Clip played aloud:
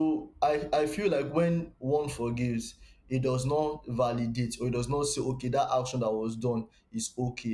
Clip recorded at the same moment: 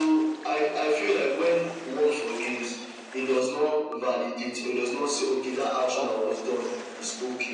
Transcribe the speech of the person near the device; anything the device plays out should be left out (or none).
That's just it.